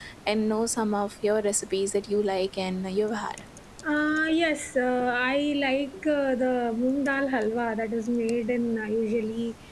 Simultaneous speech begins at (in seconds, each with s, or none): none